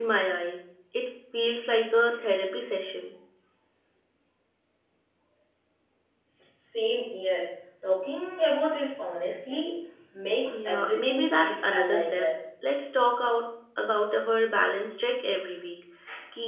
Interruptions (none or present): present